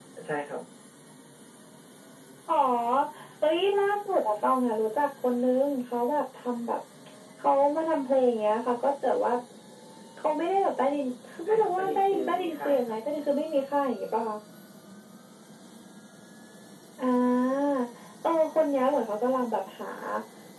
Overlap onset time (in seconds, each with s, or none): 11.5 s